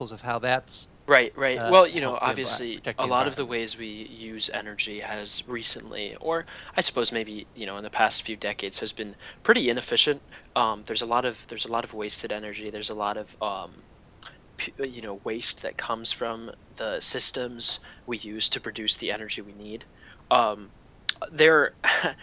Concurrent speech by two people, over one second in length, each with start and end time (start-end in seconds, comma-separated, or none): 1.6-3.5